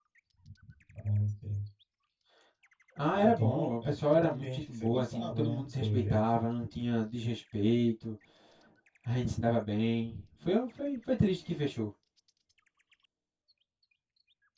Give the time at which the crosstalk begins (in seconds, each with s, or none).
3.2 s